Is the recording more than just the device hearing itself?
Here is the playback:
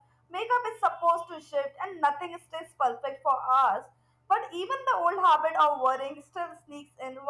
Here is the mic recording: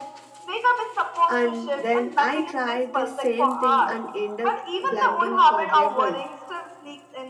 Yes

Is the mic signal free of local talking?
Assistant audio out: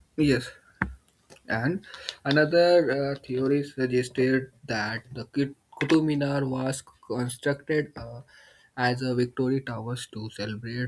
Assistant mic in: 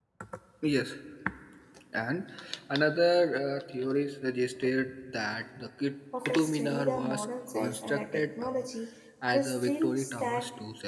No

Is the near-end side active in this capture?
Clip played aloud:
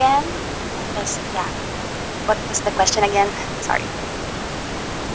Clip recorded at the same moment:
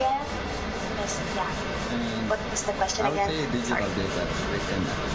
Yes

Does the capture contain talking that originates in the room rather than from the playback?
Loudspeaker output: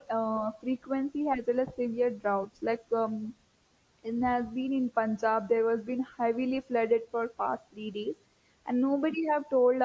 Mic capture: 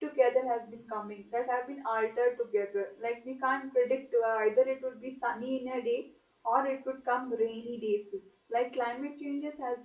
Yes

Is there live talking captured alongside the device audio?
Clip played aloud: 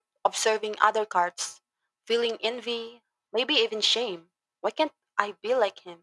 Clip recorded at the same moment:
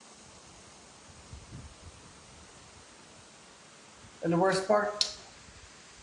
Yes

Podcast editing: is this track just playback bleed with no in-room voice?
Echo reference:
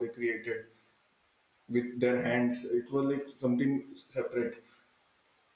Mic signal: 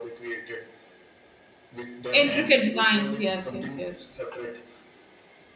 No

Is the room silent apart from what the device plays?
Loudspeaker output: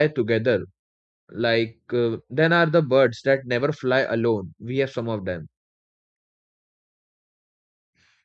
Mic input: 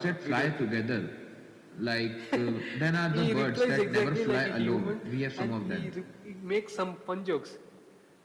No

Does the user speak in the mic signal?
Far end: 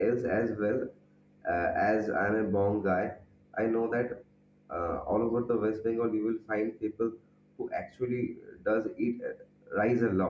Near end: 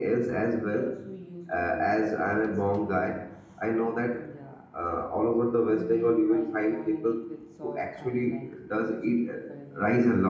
Yes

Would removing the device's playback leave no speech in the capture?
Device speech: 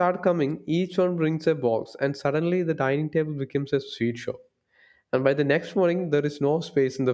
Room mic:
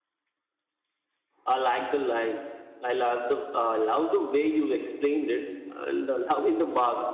No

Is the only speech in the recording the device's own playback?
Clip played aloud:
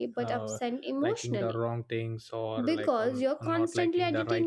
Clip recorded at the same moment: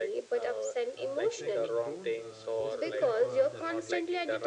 No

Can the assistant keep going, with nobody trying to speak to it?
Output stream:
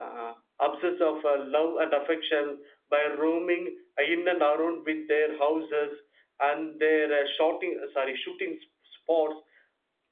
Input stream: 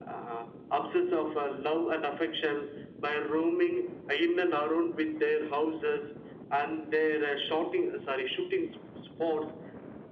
Yes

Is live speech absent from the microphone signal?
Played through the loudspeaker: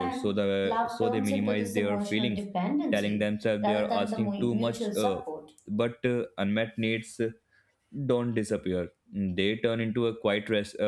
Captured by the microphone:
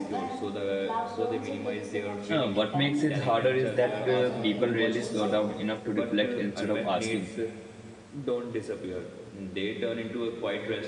No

